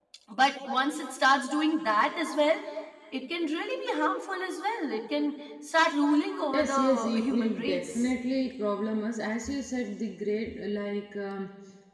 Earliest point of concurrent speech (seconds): 6.5 s

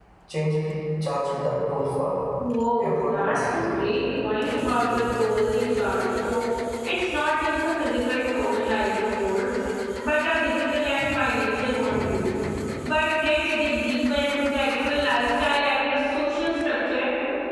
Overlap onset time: 2.8 s

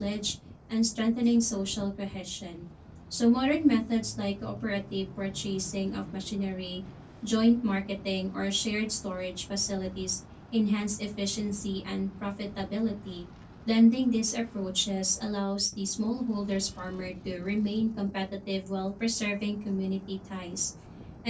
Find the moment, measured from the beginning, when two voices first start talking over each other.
none

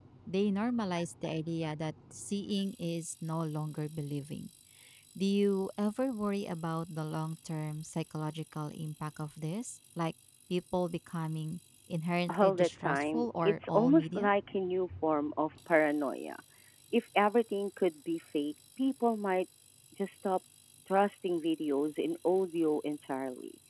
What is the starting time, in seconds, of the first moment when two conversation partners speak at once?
12.3 s

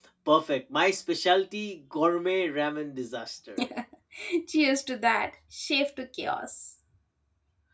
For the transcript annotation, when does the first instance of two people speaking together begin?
none

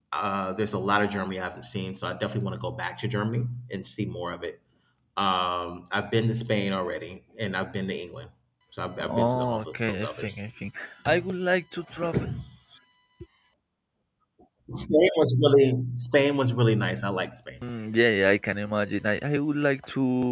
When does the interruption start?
9.0 s

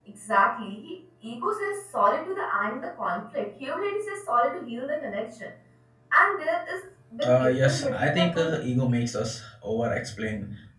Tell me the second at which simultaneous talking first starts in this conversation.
7.2 s

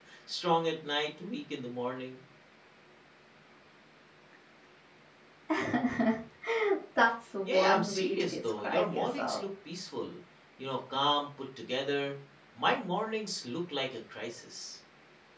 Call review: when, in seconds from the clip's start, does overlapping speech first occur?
7.5 s

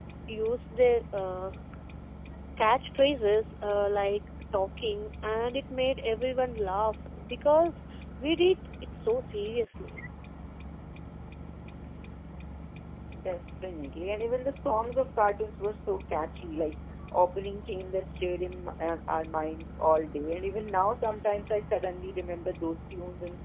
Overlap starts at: none

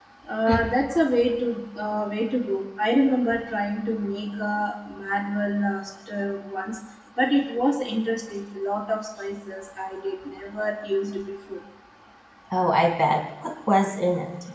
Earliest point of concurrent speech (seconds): none

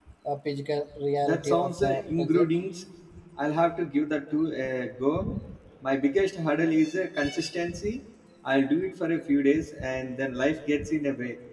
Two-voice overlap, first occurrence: 1.2 s

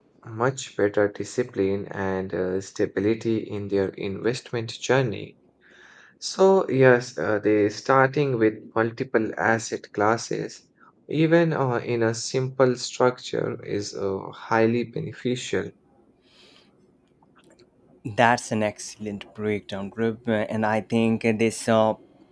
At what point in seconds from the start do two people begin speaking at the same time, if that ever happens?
none

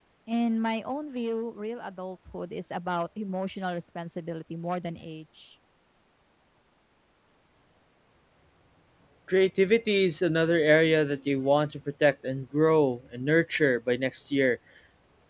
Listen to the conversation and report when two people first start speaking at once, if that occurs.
none

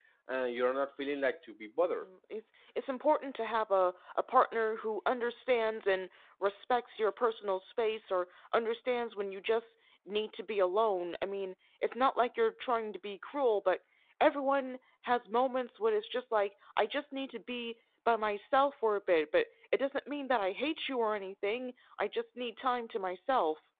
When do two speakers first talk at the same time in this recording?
none

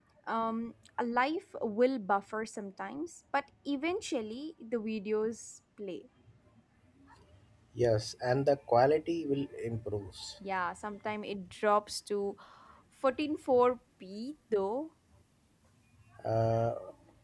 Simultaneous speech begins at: none

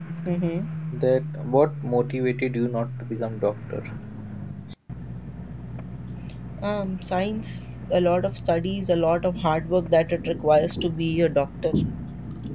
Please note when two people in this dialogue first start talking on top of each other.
none

